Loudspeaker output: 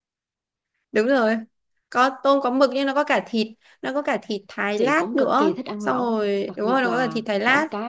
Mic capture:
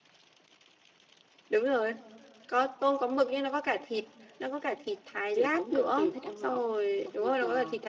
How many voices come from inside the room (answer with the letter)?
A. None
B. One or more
A